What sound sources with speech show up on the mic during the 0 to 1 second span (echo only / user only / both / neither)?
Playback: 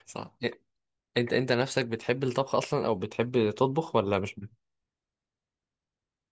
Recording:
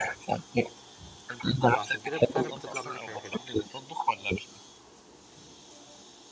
echo only